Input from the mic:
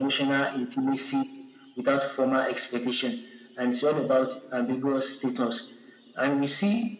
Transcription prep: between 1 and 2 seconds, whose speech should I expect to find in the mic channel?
echo only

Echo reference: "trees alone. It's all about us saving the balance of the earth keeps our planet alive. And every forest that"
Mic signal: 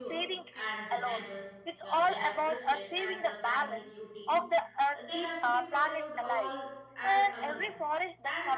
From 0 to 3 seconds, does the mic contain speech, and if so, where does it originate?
both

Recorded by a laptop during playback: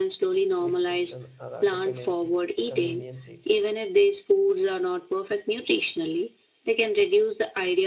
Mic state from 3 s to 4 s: both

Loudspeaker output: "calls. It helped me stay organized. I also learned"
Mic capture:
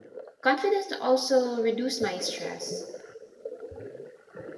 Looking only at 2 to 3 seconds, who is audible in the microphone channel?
user only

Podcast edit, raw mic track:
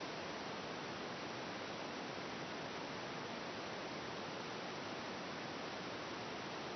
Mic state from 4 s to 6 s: neither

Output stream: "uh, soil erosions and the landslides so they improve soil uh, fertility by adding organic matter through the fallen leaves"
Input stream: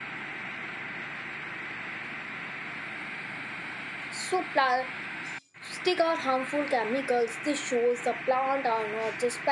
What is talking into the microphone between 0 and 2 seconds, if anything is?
neither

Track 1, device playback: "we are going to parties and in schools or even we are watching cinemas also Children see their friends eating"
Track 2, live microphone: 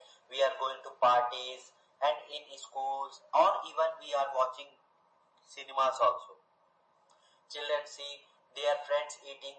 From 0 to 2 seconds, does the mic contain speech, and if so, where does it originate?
echo only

